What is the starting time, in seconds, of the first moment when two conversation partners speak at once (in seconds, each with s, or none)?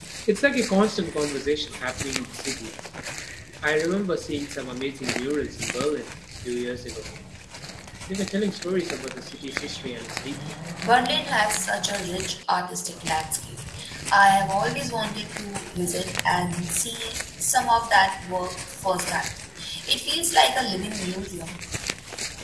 none